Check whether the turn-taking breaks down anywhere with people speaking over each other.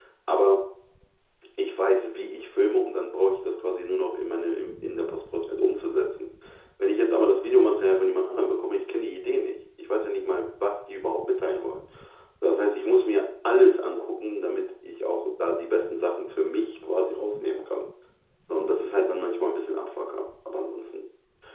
No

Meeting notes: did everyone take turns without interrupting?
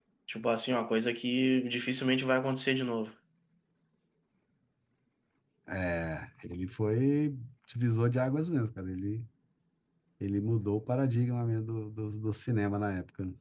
Yes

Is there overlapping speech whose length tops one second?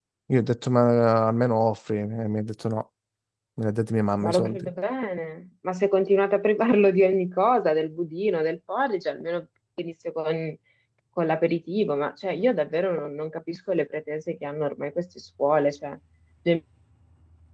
No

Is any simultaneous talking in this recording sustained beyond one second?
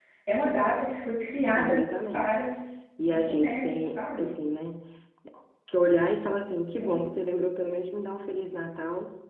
Yes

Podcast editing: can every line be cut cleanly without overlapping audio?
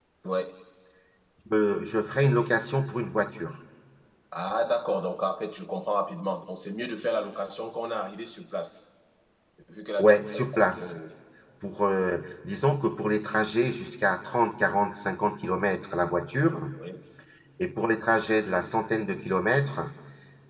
Yes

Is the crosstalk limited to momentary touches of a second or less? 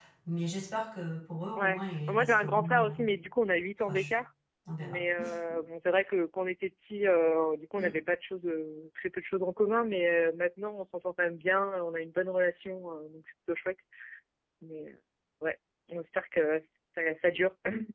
No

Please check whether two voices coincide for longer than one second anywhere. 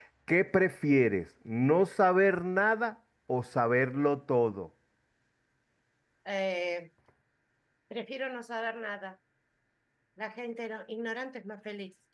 No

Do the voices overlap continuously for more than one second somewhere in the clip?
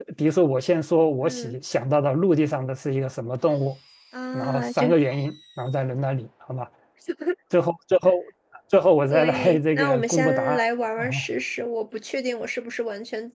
Yes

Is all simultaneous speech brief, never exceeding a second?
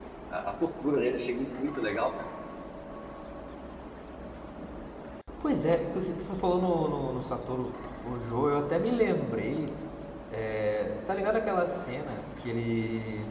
Yes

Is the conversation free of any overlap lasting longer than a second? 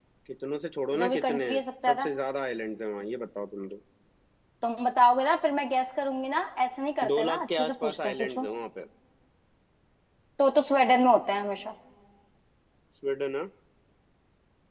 No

